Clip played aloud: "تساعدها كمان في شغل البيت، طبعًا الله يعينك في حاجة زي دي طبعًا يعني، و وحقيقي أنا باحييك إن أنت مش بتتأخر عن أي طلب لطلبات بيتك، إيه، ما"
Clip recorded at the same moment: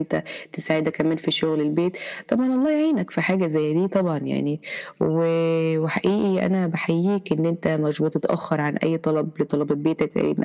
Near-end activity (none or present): none